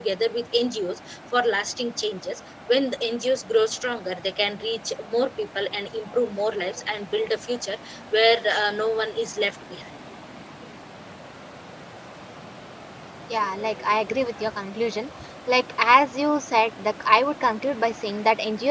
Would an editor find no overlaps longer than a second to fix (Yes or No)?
Yes